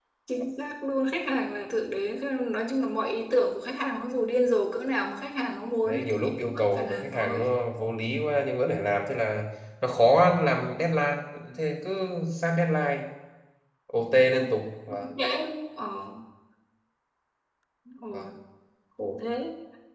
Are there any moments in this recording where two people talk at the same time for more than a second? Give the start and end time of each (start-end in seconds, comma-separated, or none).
5.8-7.5